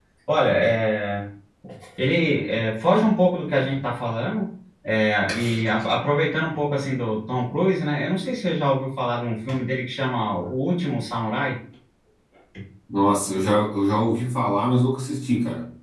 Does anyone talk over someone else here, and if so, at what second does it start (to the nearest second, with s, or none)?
none